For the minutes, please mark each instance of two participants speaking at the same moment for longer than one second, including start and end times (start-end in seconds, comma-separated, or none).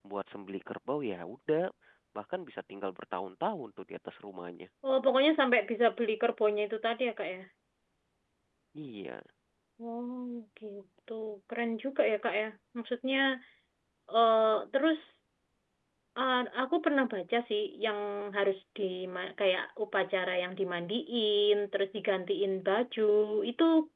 none